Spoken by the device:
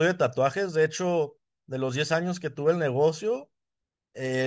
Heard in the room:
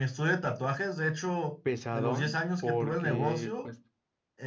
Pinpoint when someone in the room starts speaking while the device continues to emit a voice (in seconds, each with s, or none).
1.6 s